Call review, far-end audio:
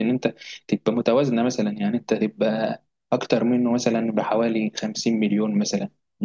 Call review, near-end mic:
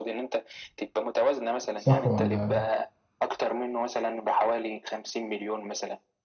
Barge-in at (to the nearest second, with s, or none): 2 s